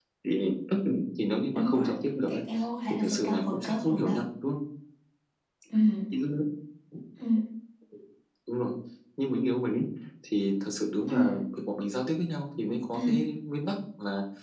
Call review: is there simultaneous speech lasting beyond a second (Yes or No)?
Yes